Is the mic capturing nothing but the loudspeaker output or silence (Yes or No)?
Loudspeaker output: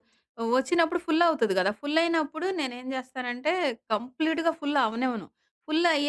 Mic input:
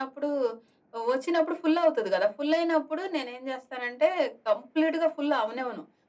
Yes